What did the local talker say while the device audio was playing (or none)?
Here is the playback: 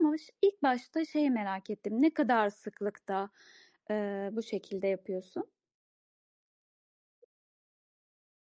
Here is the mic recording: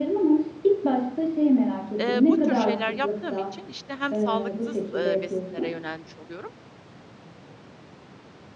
ııı, bu tür şeyler yaptığım için, işte, hem sağlıksız, ııı, besinlere yönelmiş oluyorum